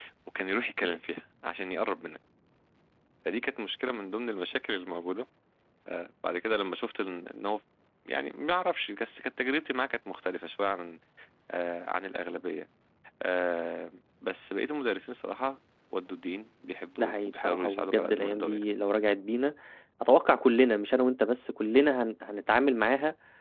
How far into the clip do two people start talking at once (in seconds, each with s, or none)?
17.0 s